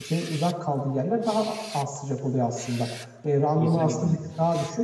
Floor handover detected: No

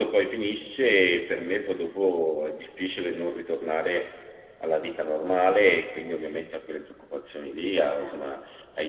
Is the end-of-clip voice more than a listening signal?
No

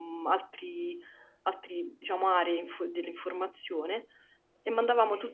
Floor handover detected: No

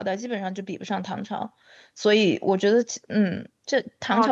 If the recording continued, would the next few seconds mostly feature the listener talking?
Yes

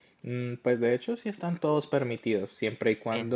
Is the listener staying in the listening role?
Yes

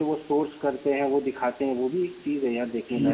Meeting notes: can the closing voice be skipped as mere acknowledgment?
No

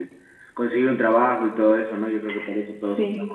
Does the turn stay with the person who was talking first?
Yes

